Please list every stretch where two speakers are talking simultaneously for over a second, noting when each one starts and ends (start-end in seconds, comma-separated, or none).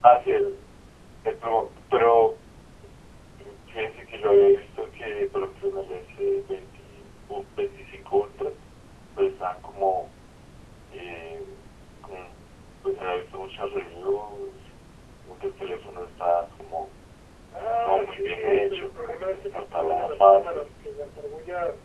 17.7-20.7